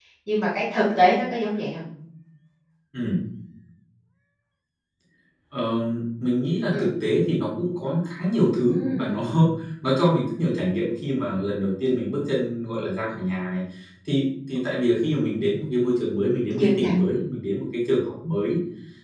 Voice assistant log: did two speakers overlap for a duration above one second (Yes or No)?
No